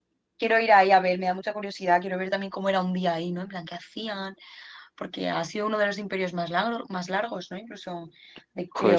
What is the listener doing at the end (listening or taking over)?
listening